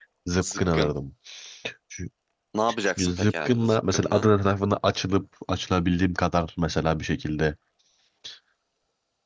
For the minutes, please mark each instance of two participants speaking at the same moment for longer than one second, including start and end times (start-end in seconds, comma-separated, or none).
2.9-4.3